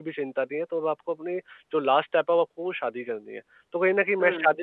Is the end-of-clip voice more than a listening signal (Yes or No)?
No